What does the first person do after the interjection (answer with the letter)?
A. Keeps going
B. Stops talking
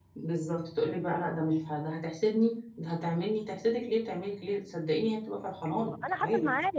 B